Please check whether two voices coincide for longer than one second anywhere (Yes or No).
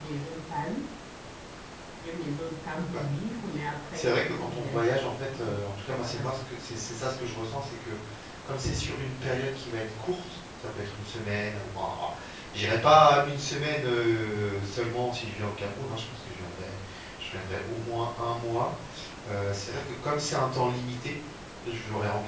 Yes